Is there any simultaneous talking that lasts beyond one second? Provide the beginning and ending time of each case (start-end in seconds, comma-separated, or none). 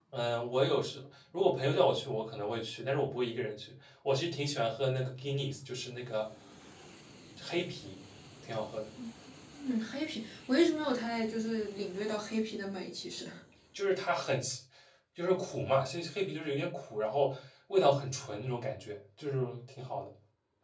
none